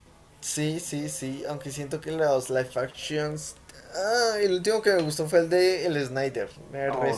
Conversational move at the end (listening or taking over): taking over